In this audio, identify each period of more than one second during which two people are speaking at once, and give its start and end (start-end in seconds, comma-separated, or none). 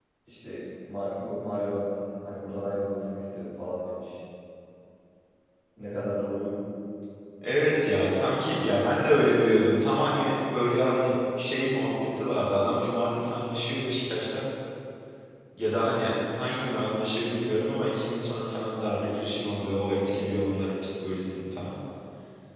none